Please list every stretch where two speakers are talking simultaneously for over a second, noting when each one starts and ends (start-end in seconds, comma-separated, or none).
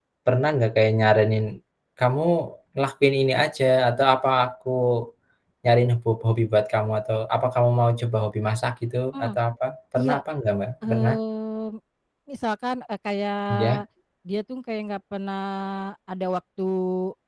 none